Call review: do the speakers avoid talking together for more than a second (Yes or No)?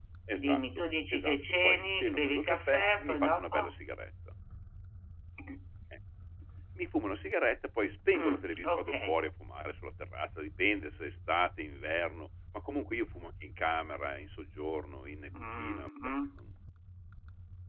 No